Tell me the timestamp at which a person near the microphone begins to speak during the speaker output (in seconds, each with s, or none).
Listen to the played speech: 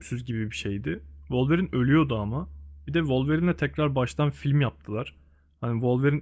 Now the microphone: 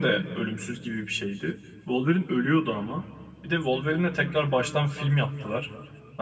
none